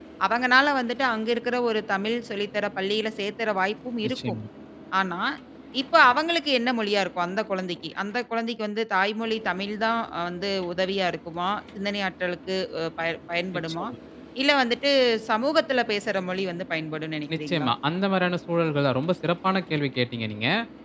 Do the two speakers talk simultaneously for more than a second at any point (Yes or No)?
No